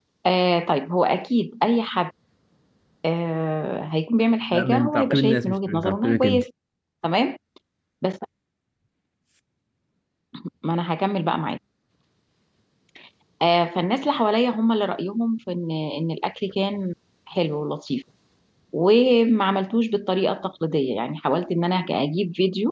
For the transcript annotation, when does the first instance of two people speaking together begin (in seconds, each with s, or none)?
4.5 s